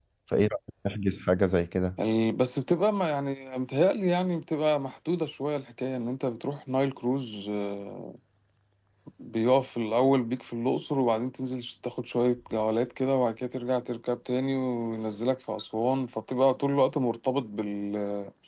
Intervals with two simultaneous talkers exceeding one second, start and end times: none

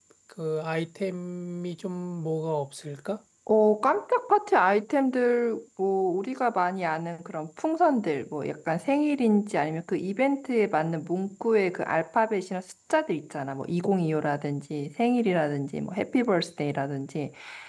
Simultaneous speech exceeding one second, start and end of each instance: none

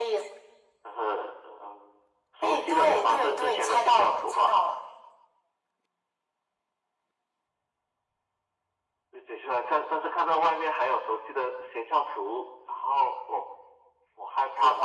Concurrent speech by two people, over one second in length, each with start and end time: 2.4-4.5

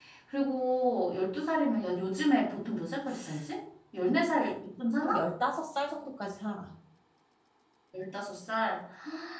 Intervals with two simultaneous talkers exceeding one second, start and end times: none

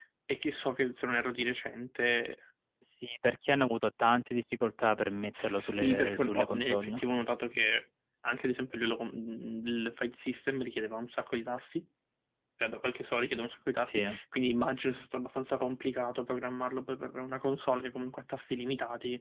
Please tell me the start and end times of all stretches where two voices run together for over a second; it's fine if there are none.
5.4-7.0

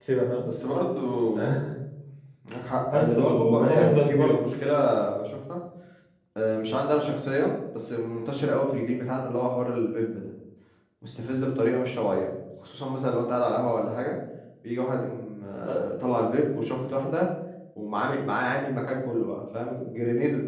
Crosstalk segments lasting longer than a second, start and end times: 2.9-4.4

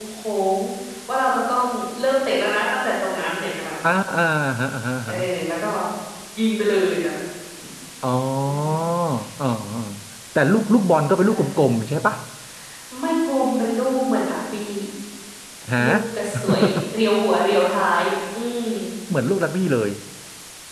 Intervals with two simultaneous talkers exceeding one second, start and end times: none

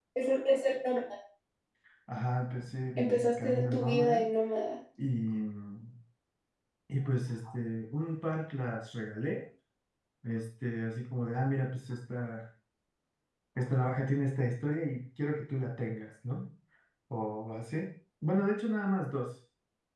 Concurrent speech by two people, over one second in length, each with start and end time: 3.0-4.2

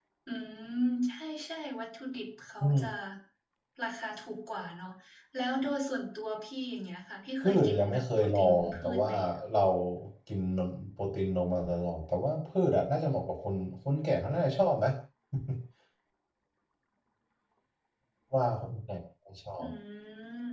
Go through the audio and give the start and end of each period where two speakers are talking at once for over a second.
7.4-9.1

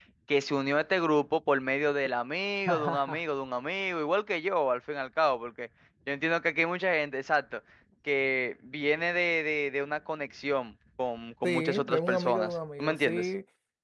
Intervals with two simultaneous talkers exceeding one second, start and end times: 11.4-13.3

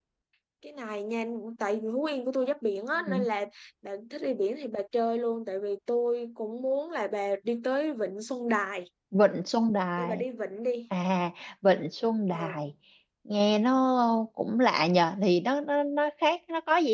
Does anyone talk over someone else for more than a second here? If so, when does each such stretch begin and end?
none

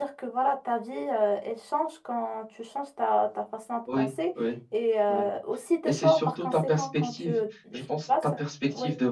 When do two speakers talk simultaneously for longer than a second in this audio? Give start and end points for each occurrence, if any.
5.8-7.3

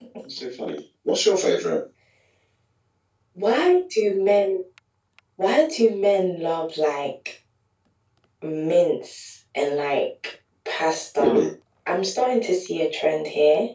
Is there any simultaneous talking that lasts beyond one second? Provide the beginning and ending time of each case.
none

